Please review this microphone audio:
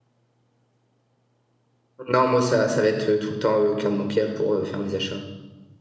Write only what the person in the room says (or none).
Non, moi ça ça va être, heu, tout le temps, heu, carte bancaire pour, heu, faire mes achats.